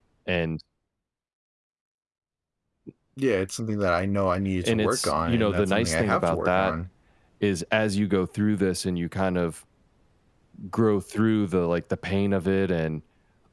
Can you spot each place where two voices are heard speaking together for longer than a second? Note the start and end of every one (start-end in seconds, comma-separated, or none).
4.6-6.7